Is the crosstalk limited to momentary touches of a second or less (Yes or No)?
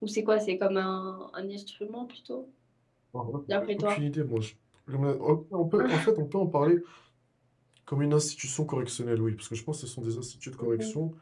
Yes